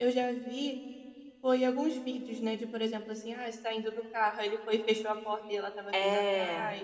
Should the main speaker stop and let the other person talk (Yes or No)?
No